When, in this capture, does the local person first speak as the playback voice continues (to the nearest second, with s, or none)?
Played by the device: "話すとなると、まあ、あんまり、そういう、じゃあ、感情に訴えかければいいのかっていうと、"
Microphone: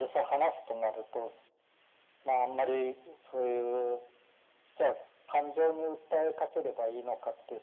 none